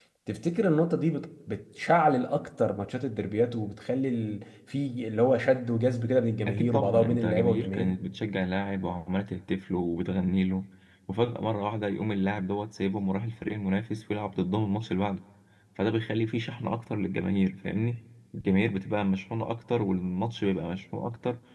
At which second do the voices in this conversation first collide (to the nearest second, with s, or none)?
6 s